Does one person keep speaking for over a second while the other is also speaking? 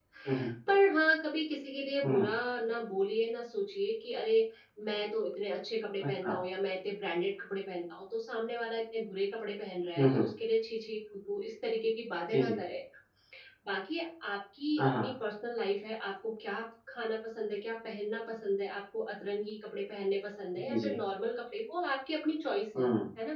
No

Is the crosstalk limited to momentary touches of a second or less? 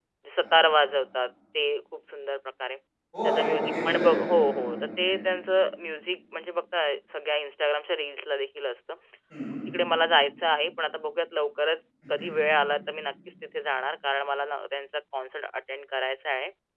No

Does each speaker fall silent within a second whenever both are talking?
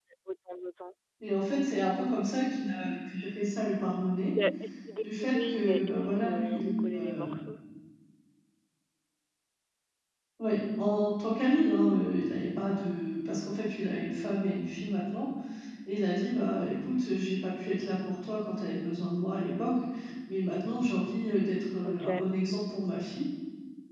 No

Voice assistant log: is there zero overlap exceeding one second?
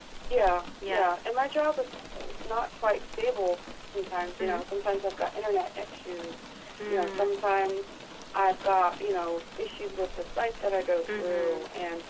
Yes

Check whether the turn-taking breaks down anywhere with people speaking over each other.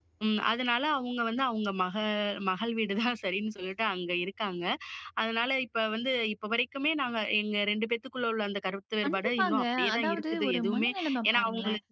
Yes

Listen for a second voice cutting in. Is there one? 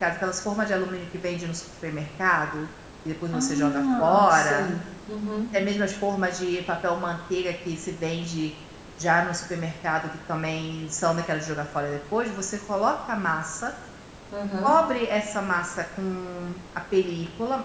Yes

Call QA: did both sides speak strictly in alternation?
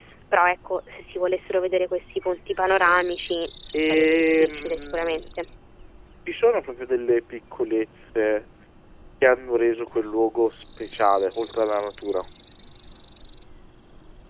No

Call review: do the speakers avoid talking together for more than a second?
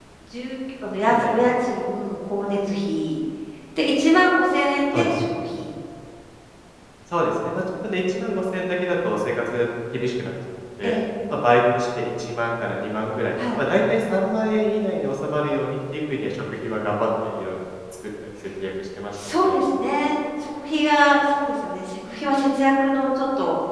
Yes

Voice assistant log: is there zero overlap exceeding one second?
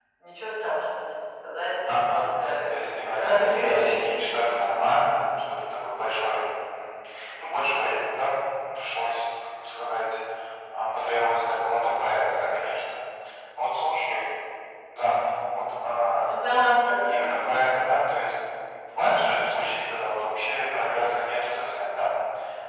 No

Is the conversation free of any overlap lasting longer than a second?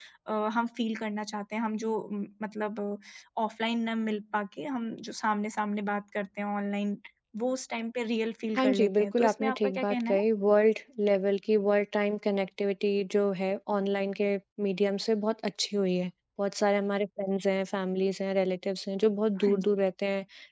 No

